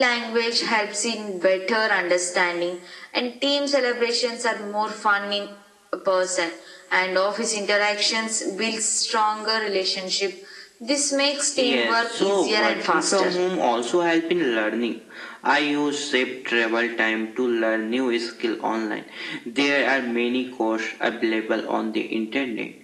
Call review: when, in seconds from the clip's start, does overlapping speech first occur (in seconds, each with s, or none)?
11.6 s